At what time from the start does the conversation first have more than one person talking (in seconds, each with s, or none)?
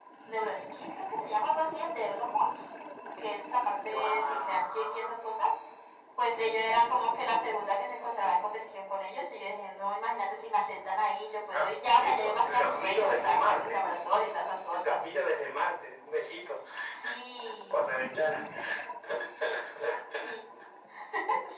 3.9 s